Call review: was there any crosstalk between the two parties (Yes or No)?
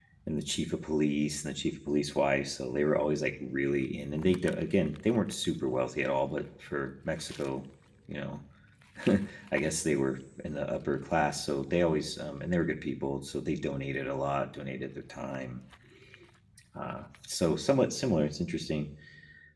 No